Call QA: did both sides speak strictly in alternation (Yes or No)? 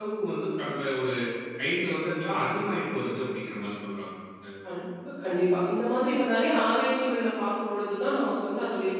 Yes